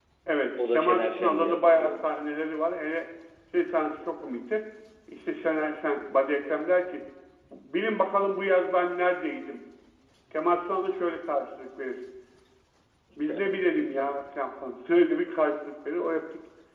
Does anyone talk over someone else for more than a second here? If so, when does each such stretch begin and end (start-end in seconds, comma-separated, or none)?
0.7-1.9